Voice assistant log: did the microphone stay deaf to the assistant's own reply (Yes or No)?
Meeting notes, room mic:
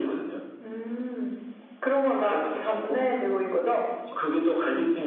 No